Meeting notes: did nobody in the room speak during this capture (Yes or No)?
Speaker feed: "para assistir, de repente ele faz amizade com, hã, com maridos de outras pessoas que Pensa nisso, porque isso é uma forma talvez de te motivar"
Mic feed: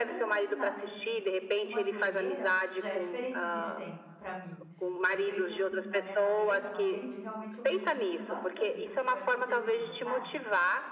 No